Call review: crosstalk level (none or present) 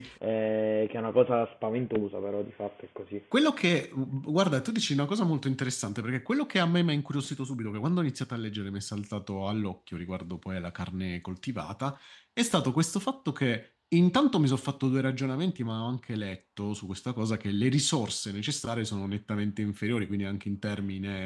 none